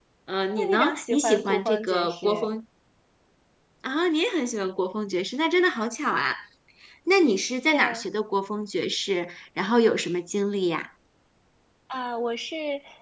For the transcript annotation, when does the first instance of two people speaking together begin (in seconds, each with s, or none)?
0.5 s